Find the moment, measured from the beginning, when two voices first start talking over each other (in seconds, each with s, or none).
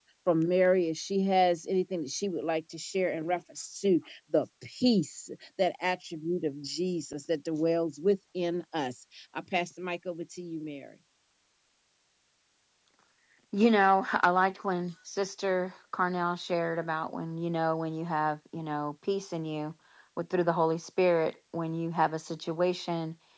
none